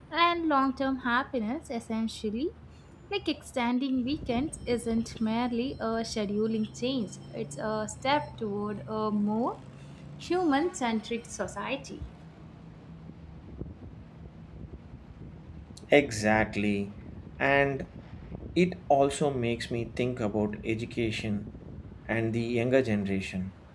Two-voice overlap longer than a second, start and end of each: none

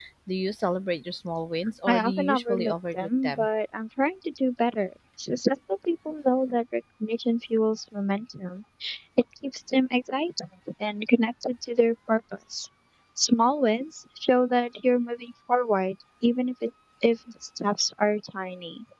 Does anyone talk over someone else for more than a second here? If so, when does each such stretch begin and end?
1.9-3.5

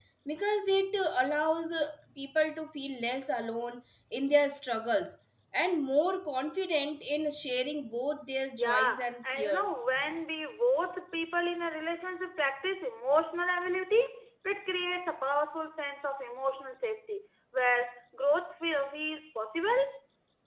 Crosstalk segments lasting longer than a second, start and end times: 8.6-9.8

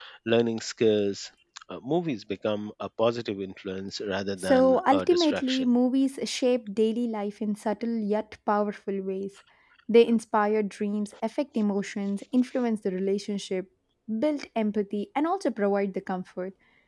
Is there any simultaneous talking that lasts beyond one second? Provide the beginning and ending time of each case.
4.4-5.7

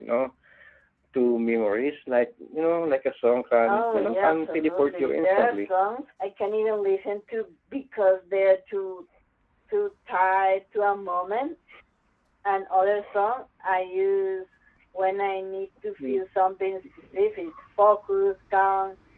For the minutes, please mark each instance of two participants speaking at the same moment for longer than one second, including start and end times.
3.7-5.7

